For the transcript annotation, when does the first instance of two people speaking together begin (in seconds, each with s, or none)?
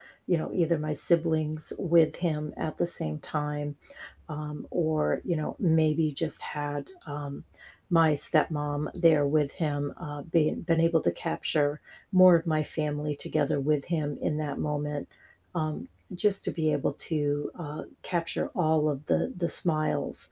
none